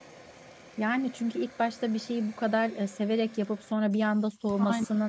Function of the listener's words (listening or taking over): listening